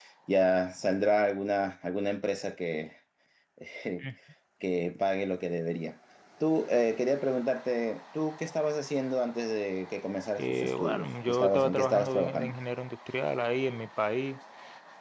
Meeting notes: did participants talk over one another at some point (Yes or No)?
Yes